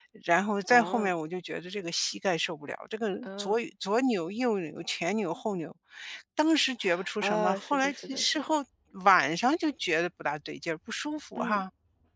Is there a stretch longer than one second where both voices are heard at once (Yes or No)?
Yes